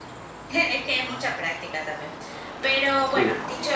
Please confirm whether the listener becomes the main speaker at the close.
No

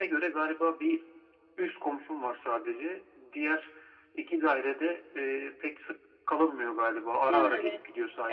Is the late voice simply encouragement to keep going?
No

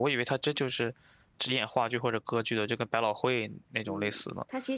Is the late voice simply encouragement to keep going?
No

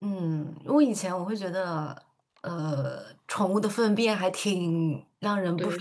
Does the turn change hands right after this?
No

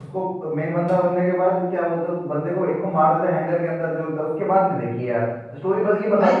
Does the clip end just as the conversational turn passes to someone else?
No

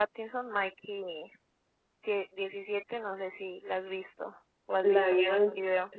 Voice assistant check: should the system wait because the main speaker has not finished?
No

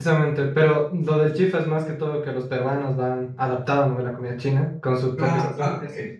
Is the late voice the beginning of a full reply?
Yes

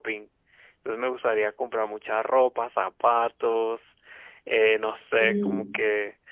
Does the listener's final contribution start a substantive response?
No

